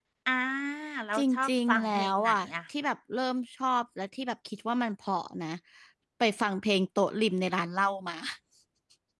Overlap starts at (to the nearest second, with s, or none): 1 s